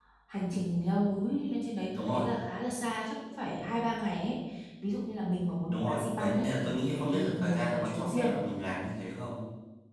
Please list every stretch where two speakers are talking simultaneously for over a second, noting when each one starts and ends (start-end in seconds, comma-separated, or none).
5.7-8.3